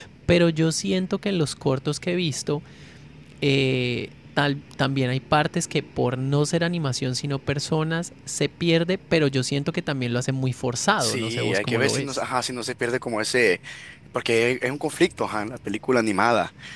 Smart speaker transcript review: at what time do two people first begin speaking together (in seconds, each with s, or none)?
11.0 s